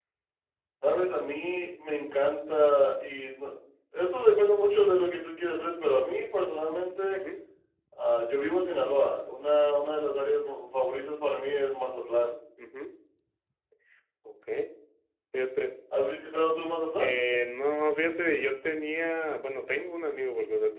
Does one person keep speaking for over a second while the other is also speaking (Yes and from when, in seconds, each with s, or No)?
No